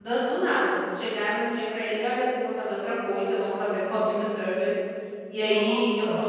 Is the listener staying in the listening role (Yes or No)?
Yes